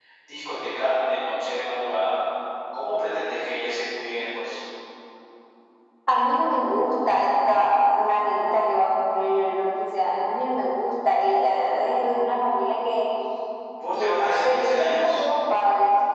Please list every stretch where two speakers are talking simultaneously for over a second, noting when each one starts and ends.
14.0-15.2

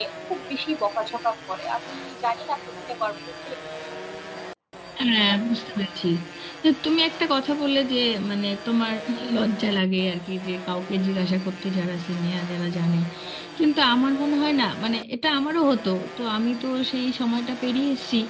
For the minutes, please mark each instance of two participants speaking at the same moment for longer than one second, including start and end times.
none

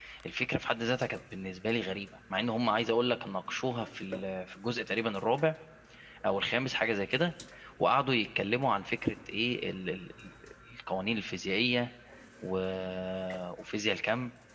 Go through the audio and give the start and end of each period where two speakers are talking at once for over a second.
none

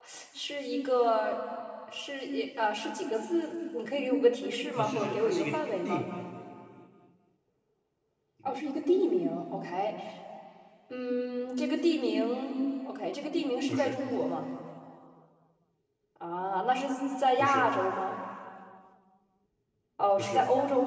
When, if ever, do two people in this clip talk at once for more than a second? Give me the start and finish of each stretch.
4.8-6.0

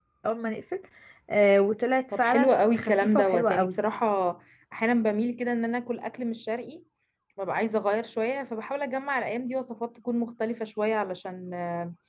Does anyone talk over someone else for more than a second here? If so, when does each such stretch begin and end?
2.2-3.8

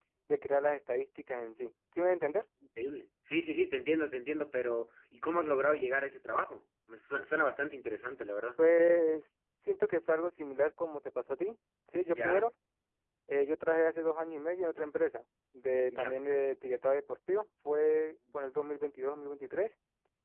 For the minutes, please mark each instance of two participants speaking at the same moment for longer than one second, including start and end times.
none

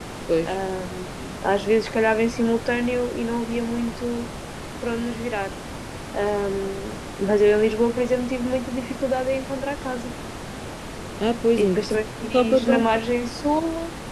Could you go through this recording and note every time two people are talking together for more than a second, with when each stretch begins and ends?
11.6-12.8

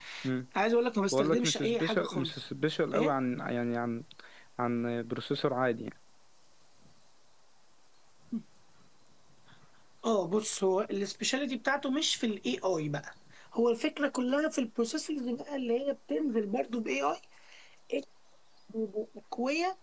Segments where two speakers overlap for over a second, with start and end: 1.1-2.4

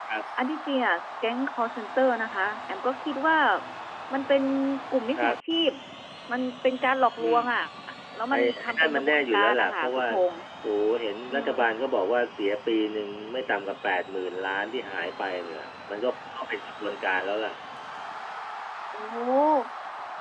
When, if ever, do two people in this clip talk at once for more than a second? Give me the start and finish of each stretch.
8.3-10.1

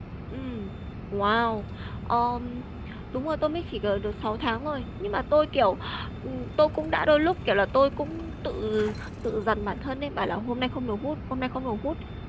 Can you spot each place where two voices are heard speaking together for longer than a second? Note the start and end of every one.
none

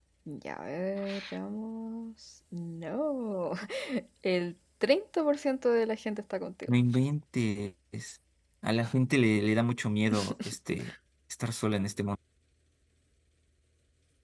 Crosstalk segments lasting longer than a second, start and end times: none

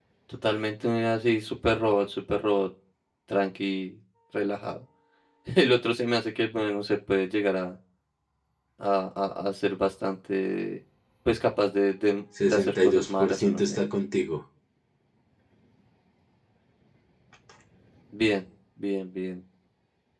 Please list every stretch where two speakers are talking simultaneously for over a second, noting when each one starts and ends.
12.5-13.8

